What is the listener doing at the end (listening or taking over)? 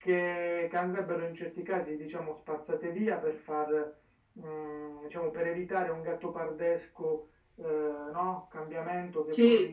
listening